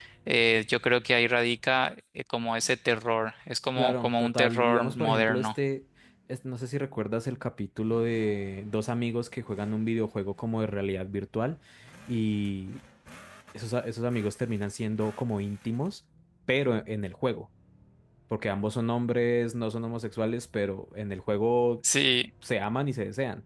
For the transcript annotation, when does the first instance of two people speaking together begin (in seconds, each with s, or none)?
3.8 s